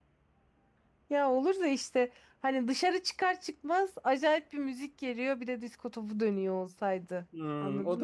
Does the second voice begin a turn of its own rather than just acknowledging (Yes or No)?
Yes